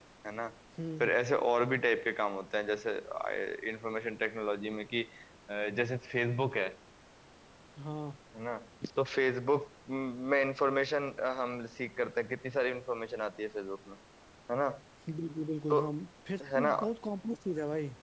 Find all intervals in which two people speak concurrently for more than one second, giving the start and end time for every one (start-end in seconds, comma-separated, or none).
none